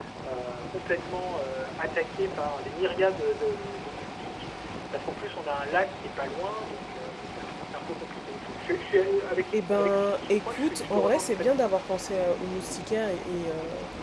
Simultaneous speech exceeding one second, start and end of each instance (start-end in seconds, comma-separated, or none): 9.5-11.7